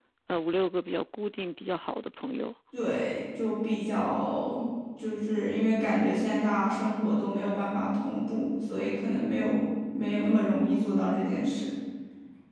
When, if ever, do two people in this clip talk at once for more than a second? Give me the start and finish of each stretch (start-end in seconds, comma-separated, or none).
none